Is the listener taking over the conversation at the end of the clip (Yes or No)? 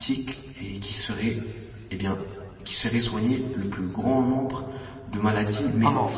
No